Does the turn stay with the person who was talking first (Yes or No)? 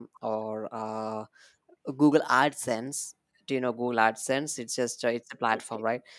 Yes